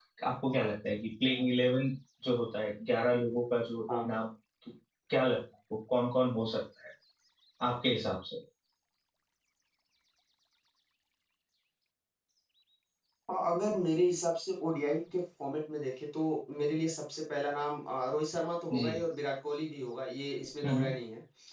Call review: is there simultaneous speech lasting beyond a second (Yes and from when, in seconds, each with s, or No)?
No